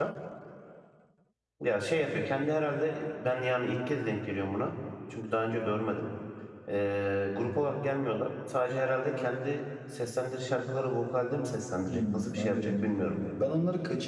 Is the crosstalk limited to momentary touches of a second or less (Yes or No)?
No